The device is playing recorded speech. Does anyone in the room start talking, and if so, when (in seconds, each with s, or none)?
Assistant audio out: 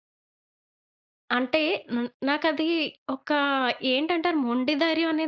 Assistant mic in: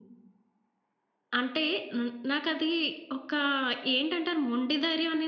none